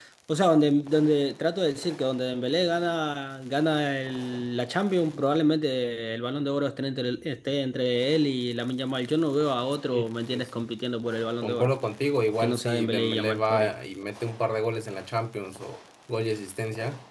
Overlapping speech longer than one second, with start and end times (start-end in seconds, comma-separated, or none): 12.4-13.7